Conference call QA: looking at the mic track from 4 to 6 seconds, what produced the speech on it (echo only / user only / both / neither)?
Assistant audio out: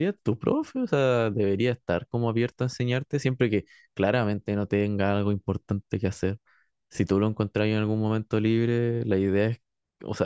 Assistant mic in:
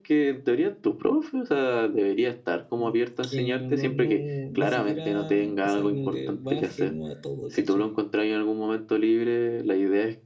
both